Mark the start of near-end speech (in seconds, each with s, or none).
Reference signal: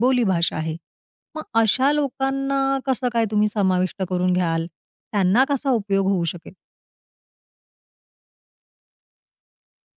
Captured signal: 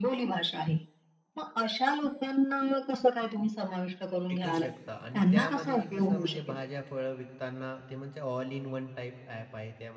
4.3 s